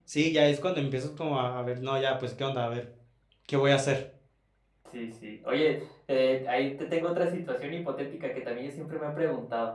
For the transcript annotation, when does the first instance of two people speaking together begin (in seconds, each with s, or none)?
none